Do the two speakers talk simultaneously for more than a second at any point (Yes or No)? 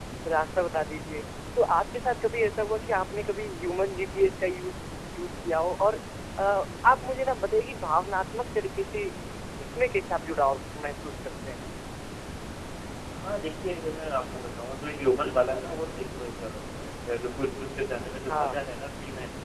No